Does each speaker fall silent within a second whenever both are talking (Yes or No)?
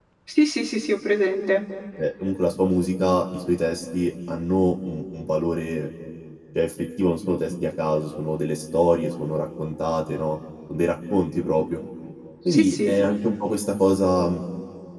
Yes